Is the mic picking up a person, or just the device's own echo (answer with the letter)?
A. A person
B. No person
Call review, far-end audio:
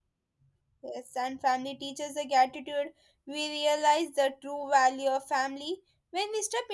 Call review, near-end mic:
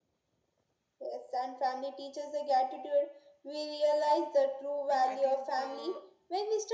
A